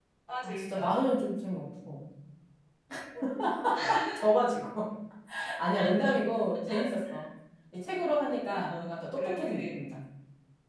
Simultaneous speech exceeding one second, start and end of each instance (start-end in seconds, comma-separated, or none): 8.6-9.8